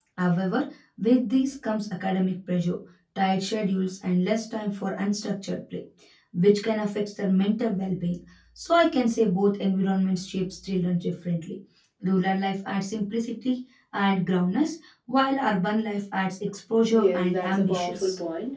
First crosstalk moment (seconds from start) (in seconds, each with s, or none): 16.9 s